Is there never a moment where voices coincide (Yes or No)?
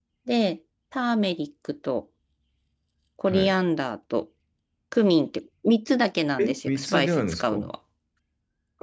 No